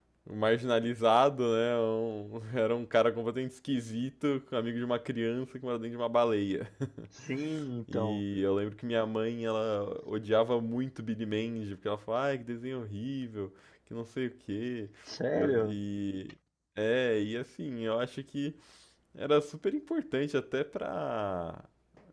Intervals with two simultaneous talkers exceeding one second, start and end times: none

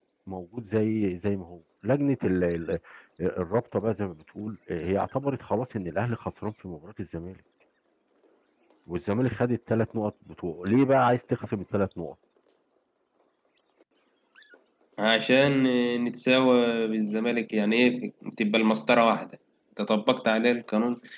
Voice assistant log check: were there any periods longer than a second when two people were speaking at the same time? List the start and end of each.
none

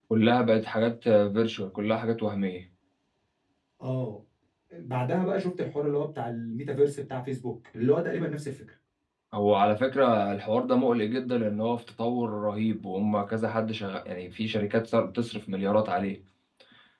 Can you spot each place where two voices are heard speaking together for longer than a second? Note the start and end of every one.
none

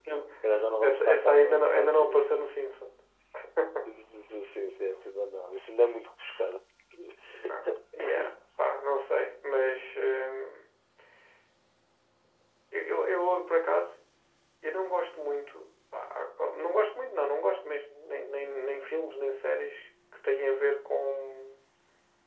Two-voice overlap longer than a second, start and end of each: 0.8-2.3

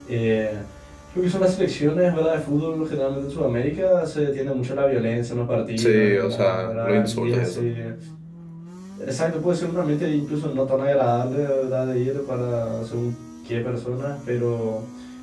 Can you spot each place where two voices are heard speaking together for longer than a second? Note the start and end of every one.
5.8-7.6

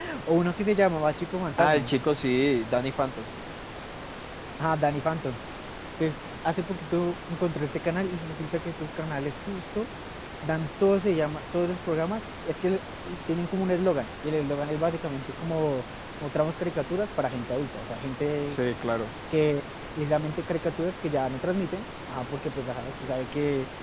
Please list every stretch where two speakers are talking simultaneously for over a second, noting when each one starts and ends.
none

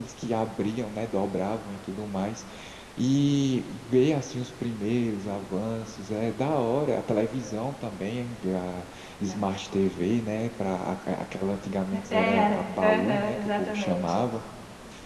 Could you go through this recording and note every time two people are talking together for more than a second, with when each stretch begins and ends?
12.1-14.3

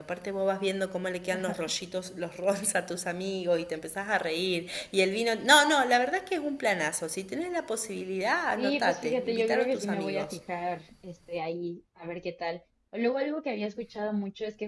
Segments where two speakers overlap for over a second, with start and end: 8.6-10.4

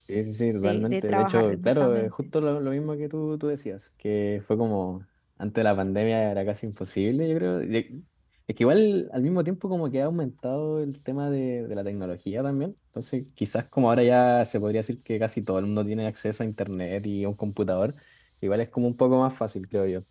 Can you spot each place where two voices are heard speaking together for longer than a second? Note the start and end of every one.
0.6-2.3

